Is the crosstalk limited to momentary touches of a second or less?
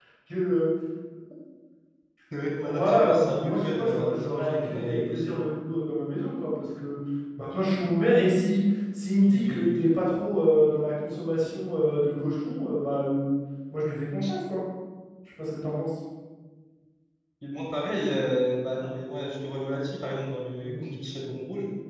No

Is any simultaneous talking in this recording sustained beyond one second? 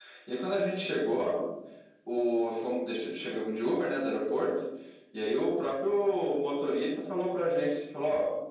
No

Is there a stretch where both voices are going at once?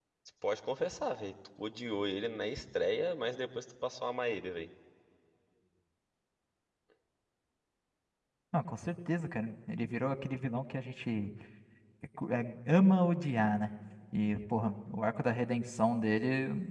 No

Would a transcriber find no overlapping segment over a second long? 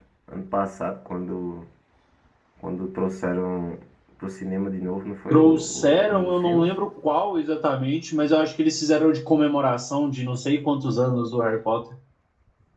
No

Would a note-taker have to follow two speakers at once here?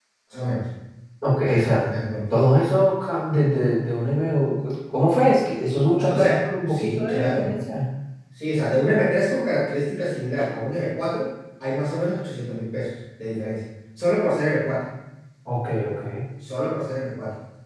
Yes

